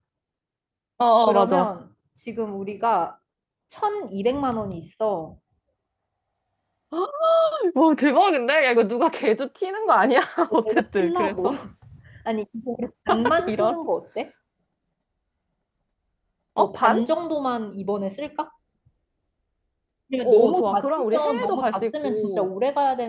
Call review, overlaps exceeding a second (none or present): present